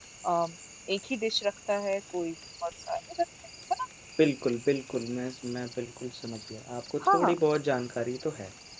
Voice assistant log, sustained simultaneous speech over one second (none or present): none